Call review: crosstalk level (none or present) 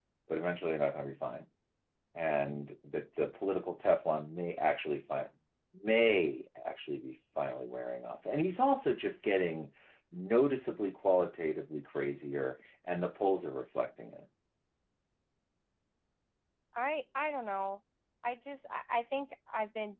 none